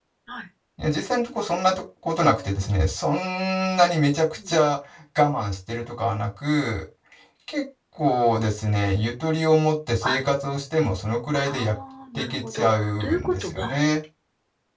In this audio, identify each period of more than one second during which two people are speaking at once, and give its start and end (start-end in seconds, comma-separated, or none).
12.2-13.8